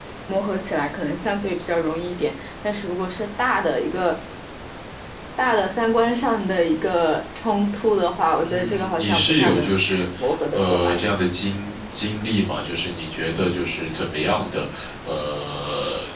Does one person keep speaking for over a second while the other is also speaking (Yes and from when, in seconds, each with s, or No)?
Yes, from 8.4 s